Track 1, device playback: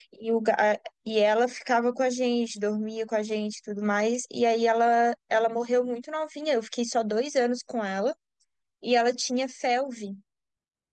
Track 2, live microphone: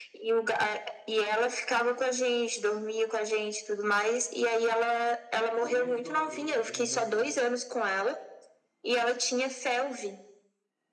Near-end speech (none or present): present